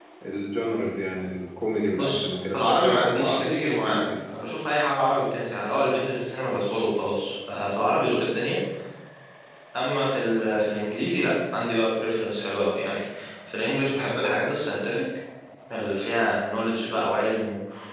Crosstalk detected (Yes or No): Yes